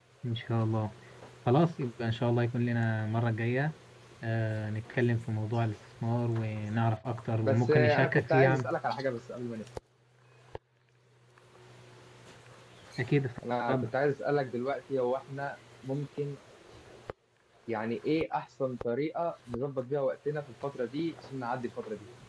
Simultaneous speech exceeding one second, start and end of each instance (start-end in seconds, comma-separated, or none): 7.4-8.7